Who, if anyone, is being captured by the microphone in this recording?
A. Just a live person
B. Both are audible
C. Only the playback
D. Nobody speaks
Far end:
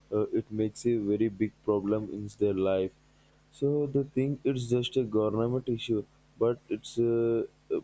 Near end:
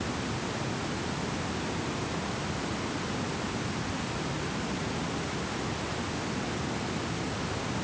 D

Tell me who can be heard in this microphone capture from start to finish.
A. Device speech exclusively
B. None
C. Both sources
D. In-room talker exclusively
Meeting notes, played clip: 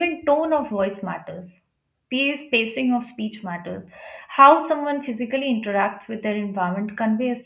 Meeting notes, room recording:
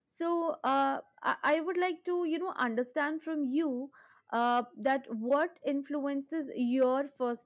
D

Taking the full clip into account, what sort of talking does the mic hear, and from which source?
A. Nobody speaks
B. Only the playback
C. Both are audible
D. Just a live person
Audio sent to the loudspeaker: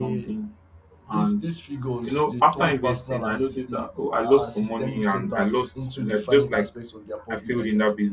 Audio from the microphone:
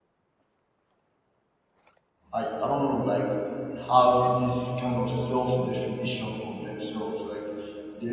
D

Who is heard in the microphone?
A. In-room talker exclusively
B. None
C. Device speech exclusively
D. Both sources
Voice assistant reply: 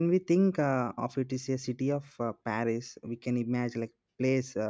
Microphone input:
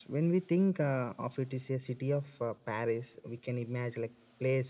C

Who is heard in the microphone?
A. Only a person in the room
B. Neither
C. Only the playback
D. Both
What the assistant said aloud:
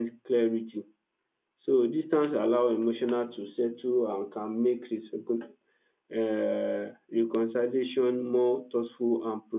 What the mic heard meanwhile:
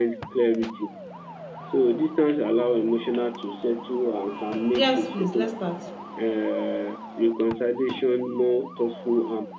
D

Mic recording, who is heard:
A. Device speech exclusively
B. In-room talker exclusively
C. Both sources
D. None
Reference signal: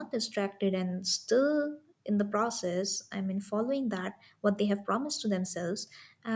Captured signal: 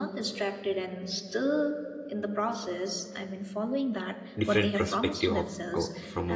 C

